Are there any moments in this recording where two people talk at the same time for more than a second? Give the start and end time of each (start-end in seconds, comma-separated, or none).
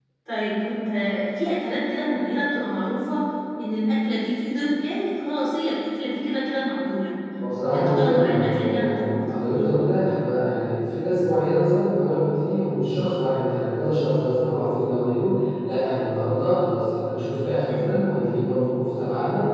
7.7-9.7